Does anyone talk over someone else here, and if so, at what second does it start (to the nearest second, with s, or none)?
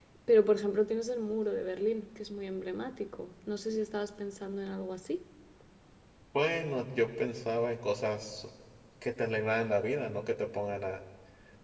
none